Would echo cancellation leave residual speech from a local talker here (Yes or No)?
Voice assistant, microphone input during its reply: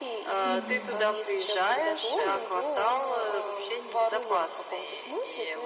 Yes